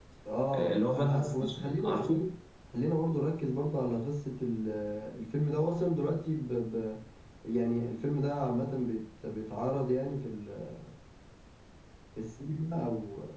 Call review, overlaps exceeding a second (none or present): present